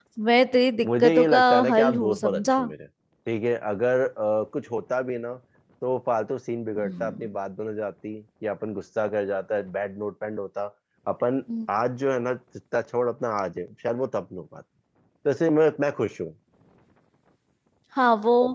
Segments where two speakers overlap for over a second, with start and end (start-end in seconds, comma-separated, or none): 0.8-2.6